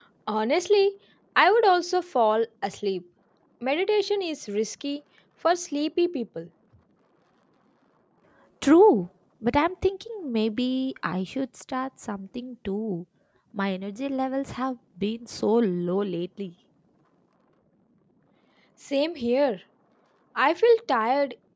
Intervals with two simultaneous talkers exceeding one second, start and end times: none

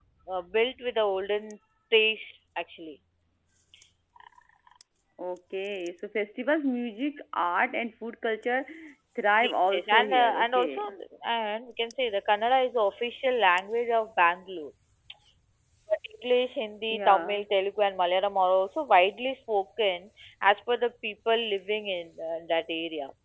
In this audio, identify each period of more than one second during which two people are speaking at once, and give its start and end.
9.4-10.8

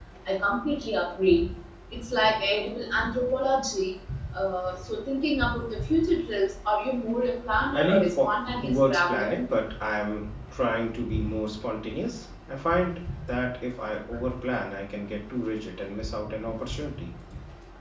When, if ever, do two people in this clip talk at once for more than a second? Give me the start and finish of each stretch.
7.7-9.3

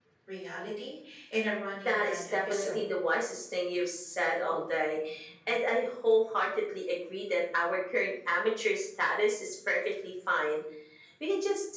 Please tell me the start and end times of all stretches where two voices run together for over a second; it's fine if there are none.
1.7-3.0

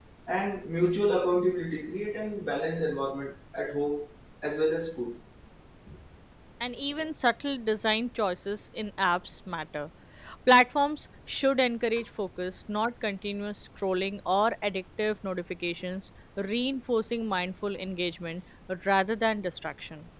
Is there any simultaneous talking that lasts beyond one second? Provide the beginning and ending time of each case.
none

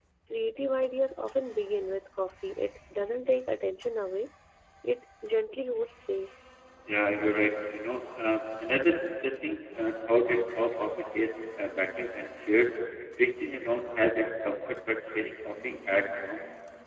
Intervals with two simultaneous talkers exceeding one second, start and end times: none

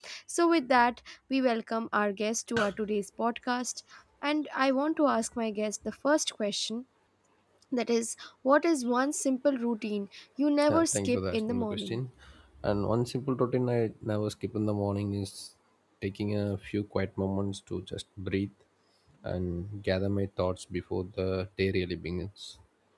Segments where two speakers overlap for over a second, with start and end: 10.7-12.0

